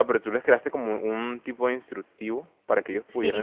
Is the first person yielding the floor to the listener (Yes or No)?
Yes